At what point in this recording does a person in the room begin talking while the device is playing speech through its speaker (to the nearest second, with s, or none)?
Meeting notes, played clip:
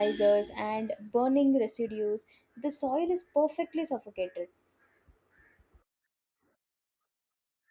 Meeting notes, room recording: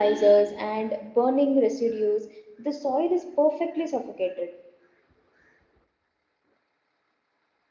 none